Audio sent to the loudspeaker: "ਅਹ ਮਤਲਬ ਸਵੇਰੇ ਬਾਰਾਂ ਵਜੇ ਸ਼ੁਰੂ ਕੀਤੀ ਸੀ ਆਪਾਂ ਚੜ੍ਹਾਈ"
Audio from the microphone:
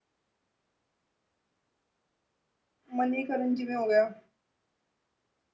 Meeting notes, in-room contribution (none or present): present